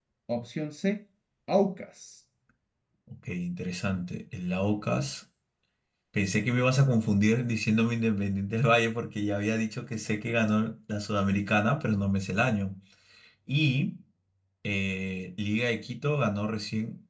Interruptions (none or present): none